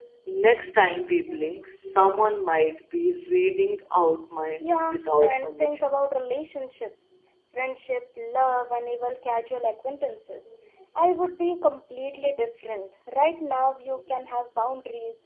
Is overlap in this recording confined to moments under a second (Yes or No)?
No